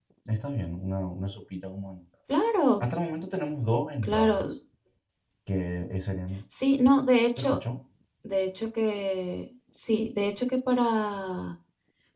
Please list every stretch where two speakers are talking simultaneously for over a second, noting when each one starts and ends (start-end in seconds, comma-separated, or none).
none